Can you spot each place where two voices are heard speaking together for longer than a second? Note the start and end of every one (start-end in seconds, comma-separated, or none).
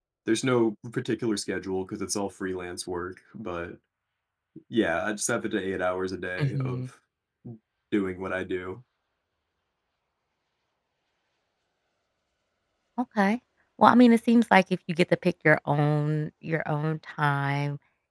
none